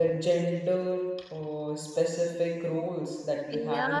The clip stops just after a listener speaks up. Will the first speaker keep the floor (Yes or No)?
No